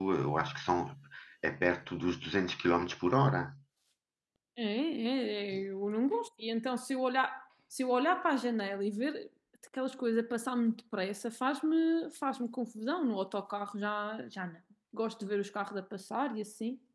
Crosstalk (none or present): none